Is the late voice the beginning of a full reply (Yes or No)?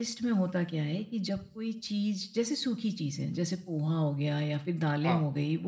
No